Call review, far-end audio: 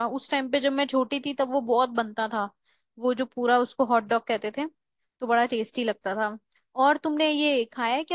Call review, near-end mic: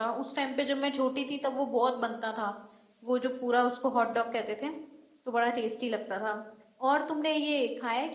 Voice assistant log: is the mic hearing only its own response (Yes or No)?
Yes